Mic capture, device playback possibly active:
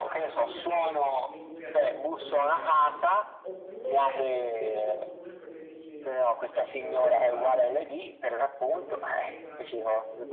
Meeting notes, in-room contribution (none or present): present